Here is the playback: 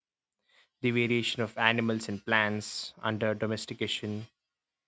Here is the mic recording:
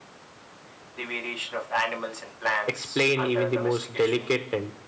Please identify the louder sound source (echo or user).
user